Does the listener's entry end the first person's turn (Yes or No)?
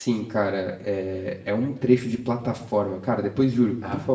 No